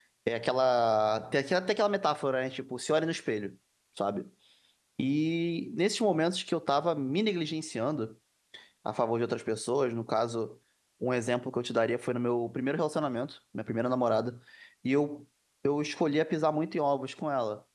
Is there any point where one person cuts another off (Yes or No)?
No